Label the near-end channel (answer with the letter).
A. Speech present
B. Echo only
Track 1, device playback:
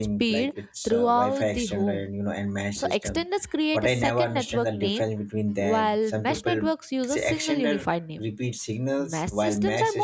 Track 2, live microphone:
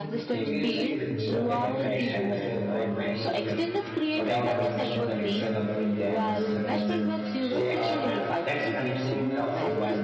A